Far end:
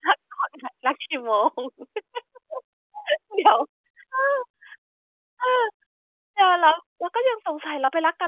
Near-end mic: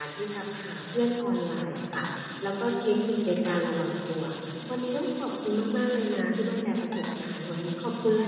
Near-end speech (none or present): present